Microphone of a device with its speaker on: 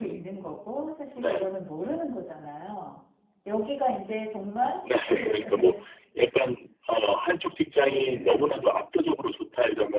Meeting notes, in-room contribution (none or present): present